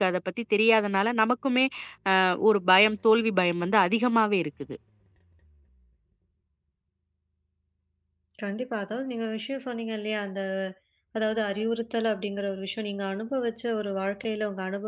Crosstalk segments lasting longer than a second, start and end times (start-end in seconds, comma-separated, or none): none